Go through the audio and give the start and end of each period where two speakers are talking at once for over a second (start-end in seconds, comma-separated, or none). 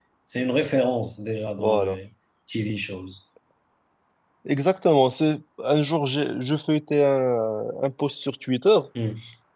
none